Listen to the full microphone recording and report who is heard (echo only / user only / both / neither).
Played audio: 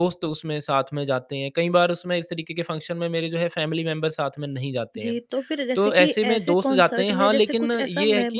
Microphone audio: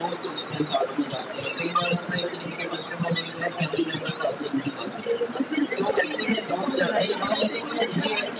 both